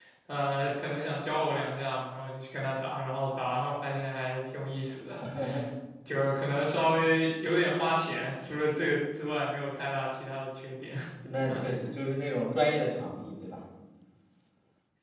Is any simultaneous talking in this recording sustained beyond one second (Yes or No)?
No